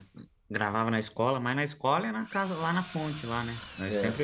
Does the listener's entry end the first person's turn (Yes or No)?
Yes